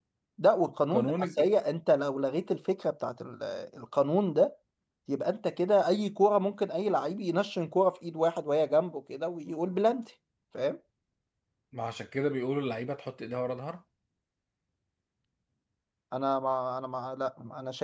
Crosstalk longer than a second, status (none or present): none